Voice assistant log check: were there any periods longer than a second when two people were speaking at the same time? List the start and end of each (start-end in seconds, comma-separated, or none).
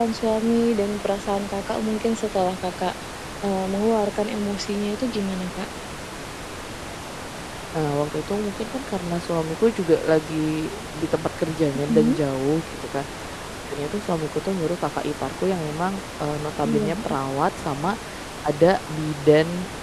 none